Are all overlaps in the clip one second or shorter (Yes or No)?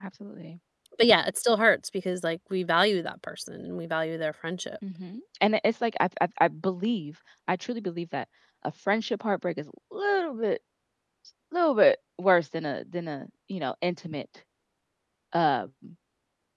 Yes